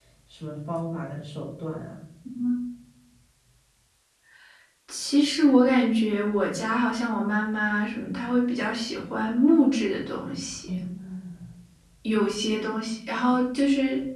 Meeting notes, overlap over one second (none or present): none